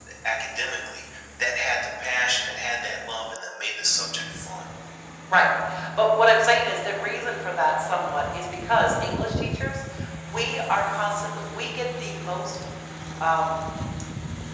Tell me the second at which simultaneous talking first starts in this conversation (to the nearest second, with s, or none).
none